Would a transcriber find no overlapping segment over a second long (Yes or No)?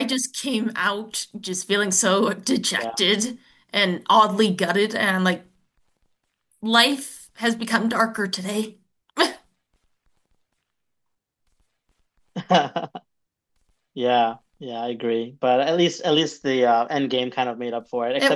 Yes